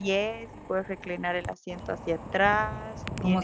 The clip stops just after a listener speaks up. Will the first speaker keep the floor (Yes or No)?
Yes